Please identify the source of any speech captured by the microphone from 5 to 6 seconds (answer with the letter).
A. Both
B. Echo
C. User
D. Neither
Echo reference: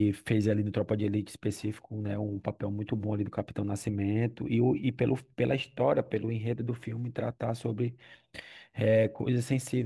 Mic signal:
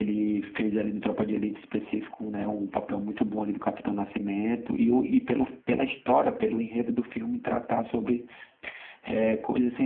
B